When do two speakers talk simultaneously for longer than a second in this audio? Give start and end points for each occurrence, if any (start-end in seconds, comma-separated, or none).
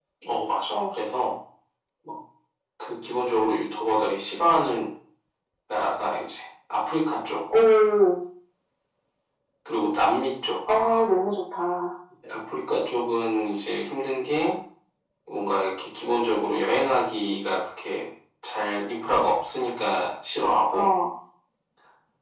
none